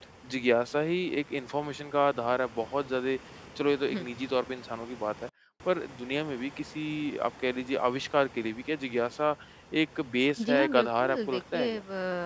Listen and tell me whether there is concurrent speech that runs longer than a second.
Yes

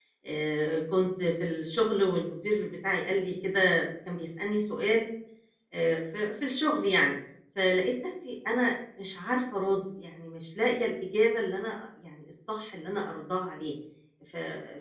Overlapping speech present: No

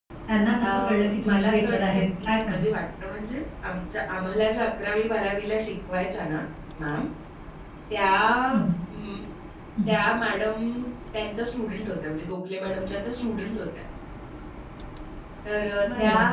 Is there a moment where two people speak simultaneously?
Yes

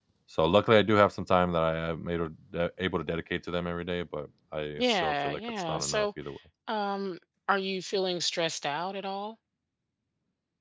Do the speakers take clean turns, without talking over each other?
No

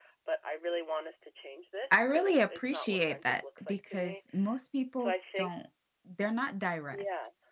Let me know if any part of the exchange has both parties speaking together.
Yes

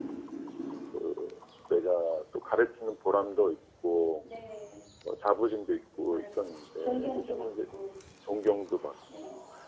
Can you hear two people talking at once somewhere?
Yes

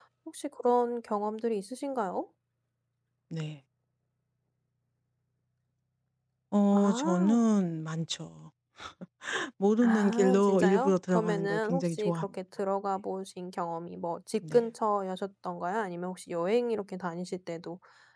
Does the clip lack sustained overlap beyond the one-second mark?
No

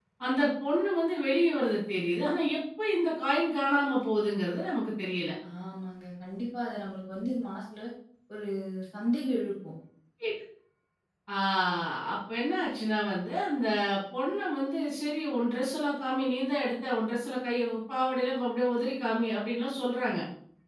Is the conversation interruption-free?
Yes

